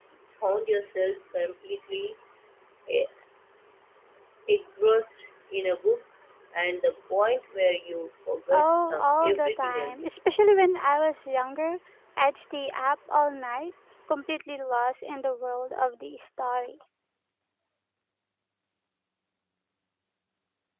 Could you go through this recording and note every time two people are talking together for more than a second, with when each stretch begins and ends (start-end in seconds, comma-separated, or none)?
8.5-10.0